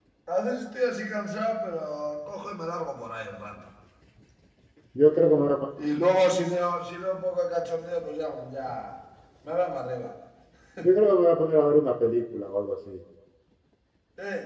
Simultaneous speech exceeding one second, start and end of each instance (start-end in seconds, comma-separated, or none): none